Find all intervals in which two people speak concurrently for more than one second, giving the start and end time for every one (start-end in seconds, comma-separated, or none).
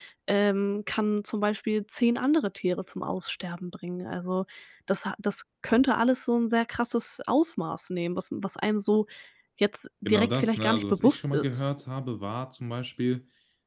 10.1-11.7